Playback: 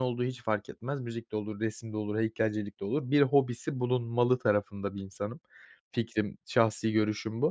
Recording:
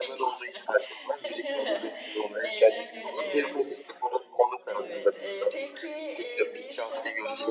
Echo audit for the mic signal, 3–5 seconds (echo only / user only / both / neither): both